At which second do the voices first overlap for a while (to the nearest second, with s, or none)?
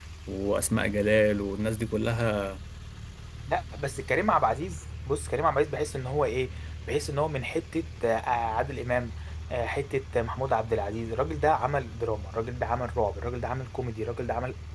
none